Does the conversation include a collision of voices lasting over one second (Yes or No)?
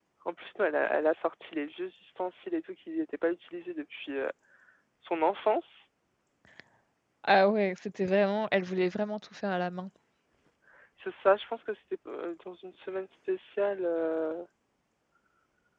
No